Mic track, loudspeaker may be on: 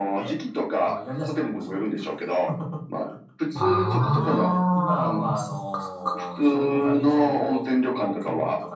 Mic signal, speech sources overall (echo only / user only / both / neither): both